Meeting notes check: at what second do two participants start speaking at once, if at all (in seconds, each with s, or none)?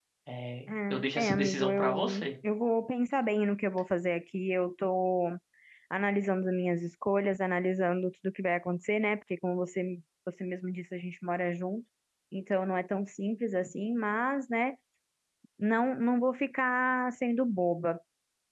0.7 s